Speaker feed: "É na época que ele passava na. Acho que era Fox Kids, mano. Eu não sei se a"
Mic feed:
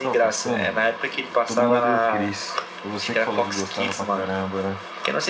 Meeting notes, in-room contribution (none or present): present